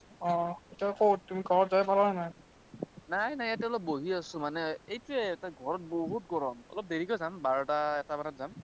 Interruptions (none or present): none